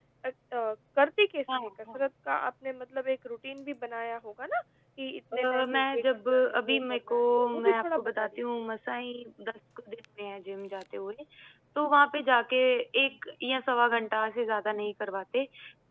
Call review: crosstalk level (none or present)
present